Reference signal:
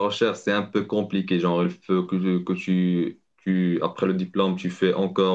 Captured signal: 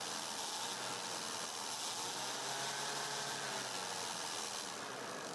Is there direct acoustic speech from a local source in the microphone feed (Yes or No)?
No